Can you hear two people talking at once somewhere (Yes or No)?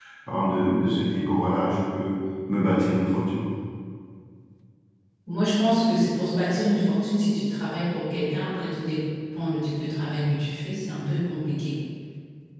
No